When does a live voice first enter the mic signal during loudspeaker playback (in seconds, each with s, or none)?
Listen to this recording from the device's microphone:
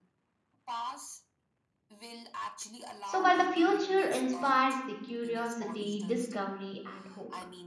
3.0 s